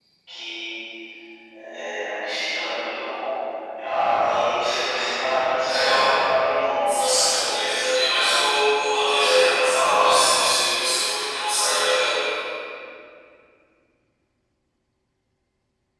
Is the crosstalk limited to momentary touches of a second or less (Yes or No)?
No